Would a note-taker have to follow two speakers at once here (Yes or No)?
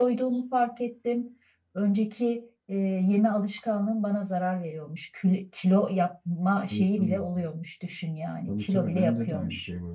Yes